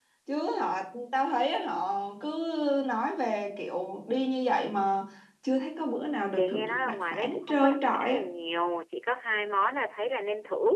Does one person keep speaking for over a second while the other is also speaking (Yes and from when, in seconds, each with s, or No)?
Yes, from 6.4 s